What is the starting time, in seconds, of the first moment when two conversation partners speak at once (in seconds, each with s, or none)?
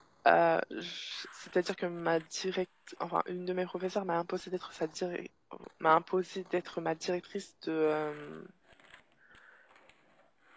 none